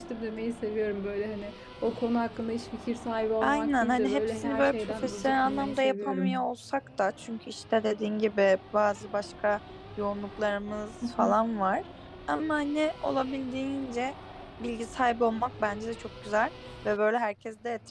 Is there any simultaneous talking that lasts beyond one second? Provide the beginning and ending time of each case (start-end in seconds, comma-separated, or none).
3.4-6.5